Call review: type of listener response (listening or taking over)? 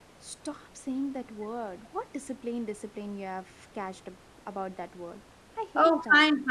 taking over